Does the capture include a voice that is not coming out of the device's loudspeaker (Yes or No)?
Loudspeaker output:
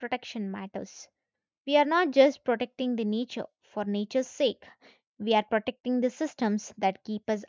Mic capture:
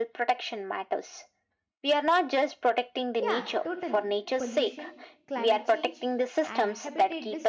Yes